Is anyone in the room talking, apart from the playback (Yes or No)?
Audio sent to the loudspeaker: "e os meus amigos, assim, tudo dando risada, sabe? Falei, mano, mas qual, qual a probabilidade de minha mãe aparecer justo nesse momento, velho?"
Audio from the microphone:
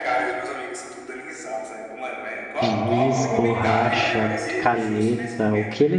Yes